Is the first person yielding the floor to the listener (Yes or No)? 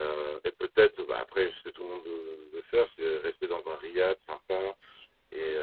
No